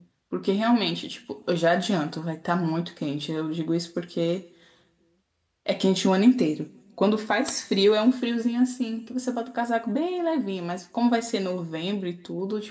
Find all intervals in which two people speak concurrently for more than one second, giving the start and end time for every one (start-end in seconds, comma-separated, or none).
none